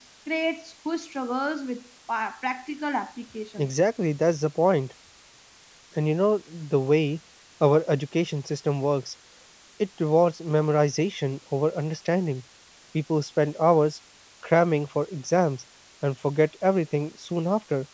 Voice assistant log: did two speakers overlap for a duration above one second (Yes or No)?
No